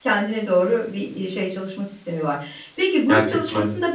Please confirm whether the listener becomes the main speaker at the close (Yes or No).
No